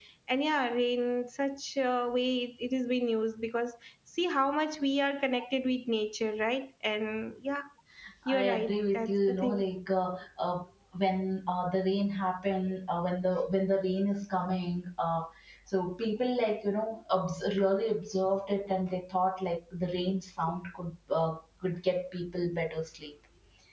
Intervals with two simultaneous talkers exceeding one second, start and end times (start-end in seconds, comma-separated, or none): 8.3-9.6